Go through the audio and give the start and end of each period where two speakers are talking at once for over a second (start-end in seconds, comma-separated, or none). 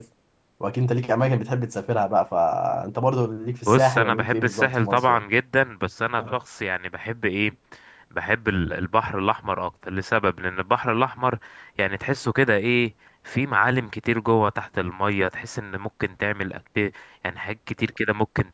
3.7-5.2